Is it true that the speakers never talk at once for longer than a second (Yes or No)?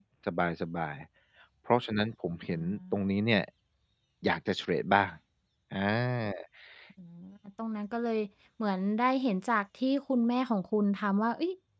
Yes